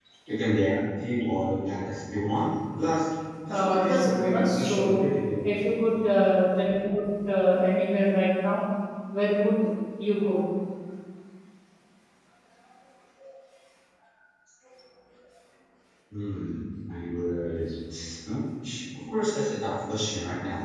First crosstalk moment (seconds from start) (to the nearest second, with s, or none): 3 s